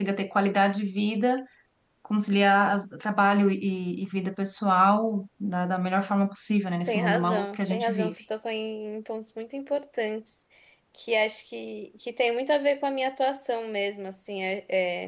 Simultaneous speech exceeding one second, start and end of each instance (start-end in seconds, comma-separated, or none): 6.9-8.2